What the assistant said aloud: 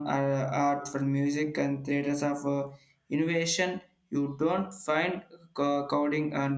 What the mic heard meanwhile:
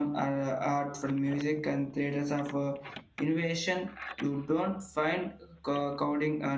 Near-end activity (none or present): none